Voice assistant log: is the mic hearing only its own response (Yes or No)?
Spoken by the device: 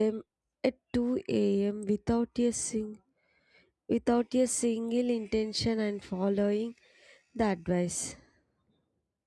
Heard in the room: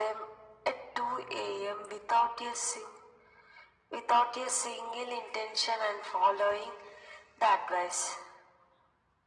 Yes